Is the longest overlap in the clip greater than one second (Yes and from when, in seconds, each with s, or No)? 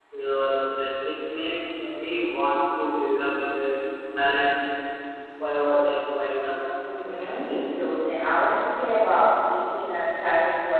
No